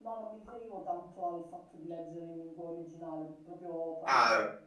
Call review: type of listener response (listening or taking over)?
listening